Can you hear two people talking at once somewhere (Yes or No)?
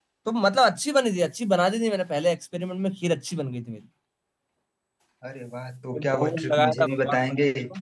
Yes